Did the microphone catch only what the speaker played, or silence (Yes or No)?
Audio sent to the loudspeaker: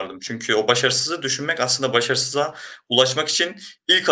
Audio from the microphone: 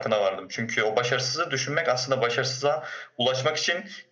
Yes